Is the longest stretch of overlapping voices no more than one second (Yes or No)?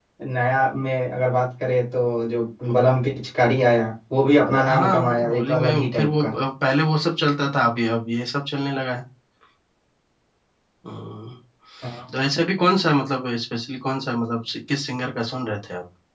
No